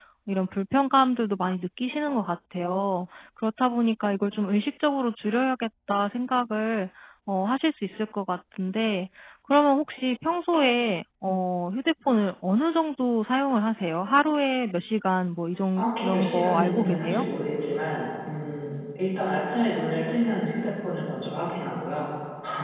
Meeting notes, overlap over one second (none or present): present